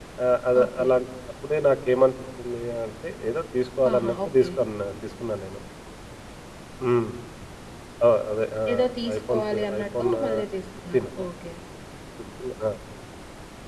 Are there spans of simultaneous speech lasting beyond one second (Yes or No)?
Yes